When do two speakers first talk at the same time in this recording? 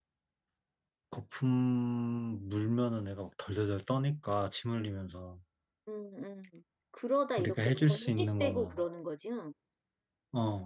7.4 s

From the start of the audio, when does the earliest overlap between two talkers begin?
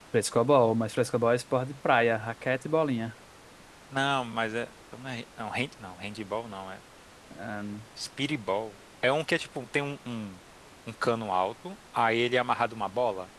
none

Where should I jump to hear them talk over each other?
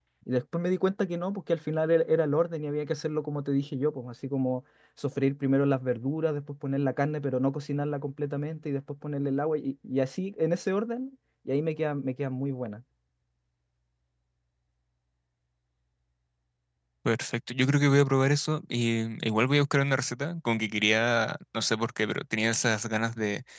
none

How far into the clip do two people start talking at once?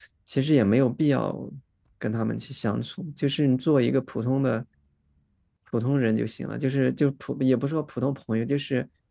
none

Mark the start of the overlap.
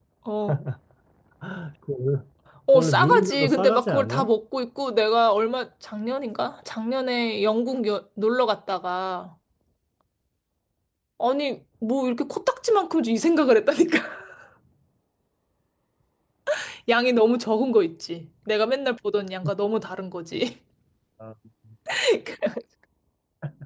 2.7 s

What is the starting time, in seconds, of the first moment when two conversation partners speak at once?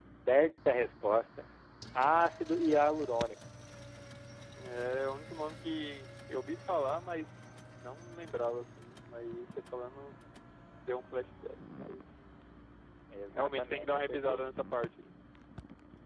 13.3 s

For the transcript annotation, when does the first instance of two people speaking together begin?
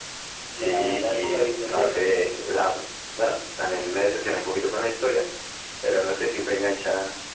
0.5 s

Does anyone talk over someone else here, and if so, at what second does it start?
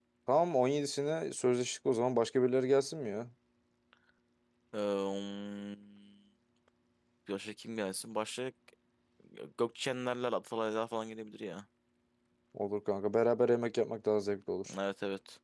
none

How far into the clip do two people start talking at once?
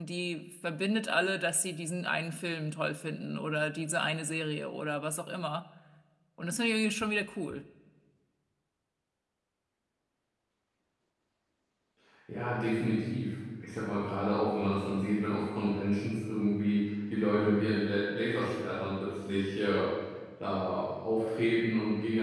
none

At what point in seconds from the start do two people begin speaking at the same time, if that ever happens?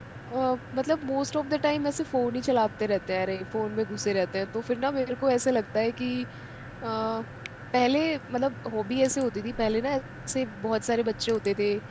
none

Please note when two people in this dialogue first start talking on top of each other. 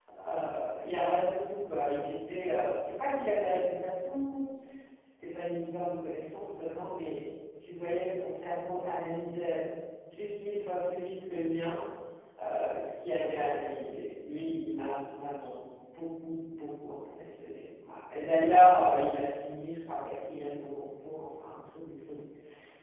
none

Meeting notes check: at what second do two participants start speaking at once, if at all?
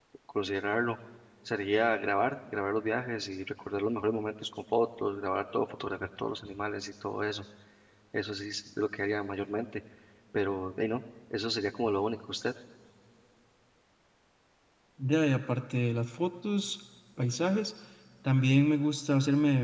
none

